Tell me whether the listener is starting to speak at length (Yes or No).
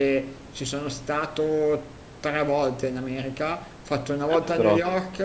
No